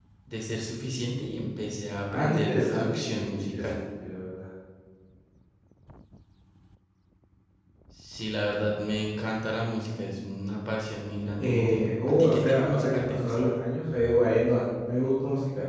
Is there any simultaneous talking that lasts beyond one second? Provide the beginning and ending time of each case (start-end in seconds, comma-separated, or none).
2.1-3.8, 11.4-13.4